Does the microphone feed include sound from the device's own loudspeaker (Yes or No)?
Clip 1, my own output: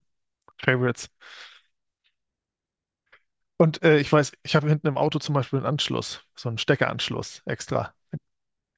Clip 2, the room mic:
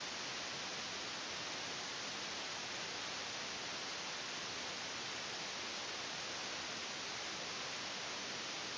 No